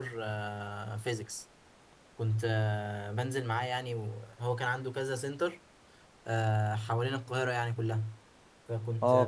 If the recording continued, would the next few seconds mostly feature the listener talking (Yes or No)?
Yes